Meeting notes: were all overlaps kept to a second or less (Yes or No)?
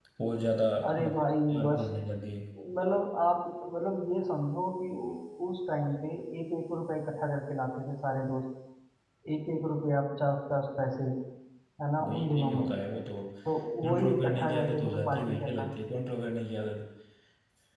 No